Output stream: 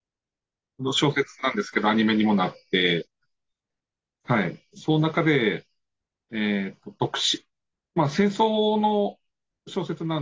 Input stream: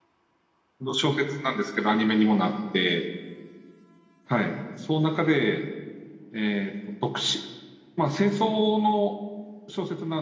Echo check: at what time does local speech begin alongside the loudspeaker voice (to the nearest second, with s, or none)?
none